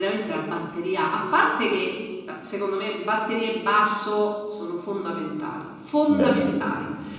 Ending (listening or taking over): listening